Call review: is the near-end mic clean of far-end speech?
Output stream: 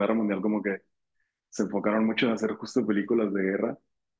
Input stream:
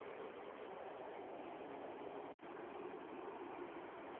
Yes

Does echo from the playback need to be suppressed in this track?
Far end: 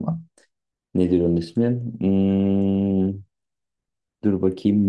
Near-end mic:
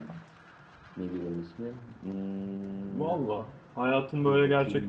Yes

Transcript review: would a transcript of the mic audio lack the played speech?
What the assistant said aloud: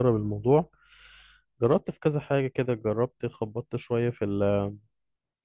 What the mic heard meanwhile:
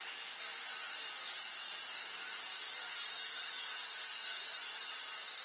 Yes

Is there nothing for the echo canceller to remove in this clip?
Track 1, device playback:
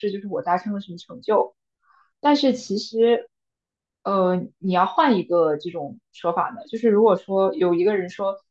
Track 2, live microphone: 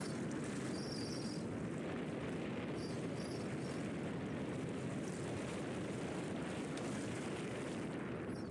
Yes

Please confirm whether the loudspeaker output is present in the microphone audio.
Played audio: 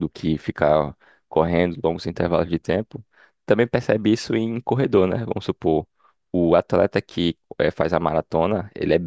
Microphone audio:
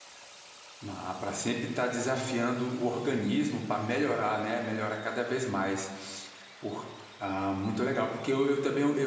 No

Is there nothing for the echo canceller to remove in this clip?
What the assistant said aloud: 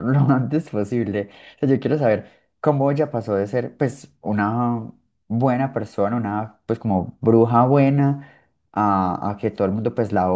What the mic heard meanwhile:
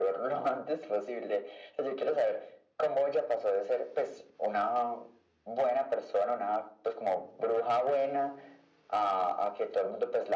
No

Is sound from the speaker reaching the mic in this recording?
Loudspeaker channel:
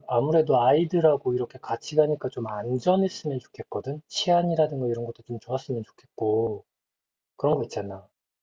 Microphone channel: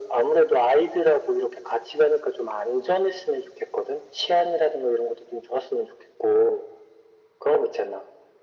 Yes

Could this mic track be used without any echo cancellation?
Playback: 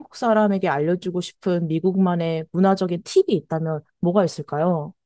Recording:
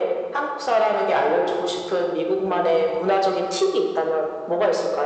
No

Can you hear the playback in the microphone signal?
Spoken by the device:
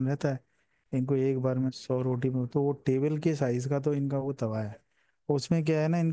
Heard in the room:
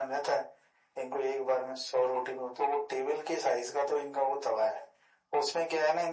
Yes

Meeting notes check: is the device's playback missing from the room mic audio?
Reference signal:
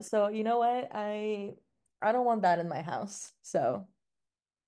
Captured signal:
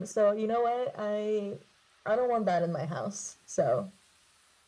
No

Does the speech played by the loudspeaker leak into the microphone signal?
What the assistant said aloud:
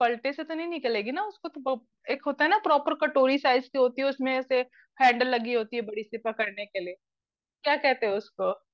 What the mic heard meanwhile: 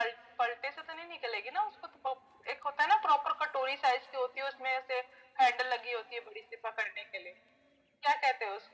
Yes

